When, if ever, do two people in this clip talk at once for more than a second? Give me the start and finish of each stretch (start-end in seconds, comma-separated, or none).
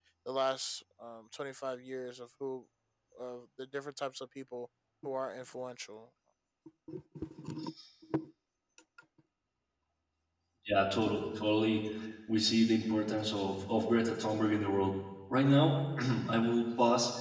none